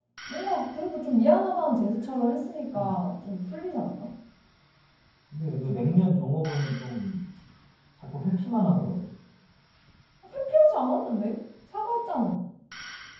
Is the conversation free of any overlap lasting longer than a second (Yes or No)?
Yes